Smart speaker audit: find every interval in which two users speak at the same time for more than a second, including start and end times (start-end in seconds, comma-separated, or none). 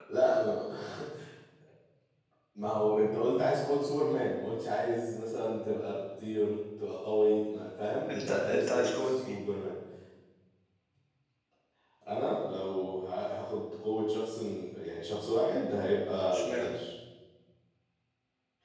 8.1-9.4